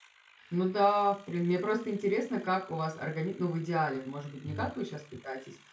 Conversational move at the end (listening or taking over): listening